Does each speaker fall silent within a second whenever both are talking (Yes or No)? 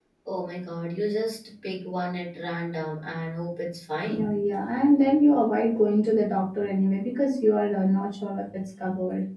Yes